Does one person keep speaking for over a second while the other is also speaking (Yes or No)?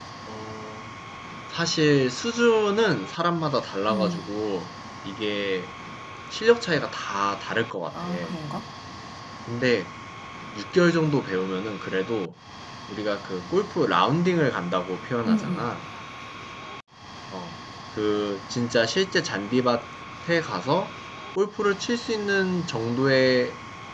No